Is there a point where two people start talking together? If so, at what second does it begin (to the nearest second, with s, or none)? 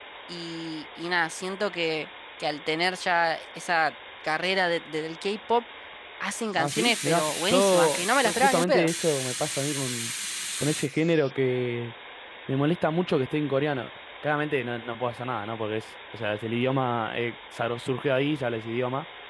7 s